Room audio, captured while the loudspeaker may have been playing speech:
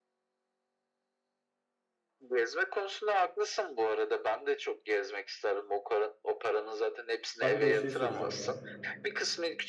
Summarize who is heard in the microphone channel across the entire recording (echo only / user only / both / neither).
both